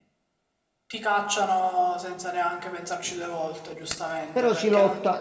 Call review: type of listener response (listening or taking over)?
taking over